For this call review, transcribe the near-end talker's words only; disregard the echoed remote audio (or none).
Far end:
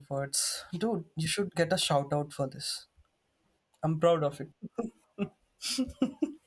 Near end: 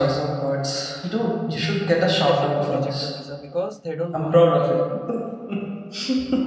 they will definitely reject your visa because they don't want you